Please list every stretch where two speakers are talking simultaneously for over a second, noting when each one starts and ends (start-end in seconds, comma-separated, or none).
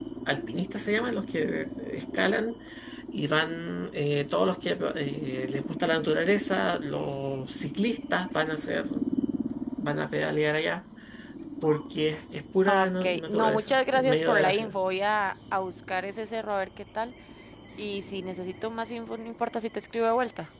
12.7-14.7